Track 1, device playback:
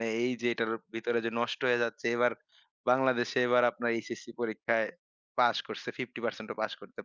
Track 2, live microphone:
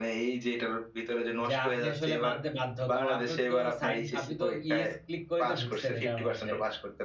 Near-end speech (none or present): present